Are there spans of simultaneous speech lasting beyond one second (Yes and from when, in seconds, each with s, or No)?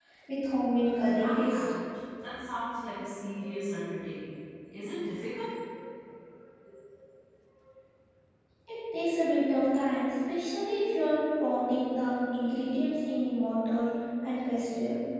No